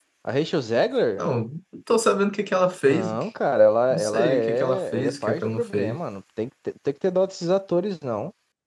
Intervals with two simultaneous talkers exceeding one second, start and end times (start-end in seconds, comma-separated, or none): 3.9-6.0